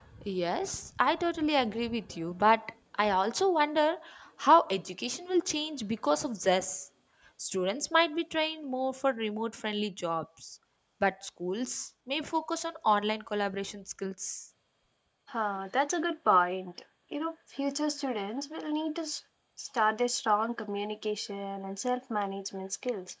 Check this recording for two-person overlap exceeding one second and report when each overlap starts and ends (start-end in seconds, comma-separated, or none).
none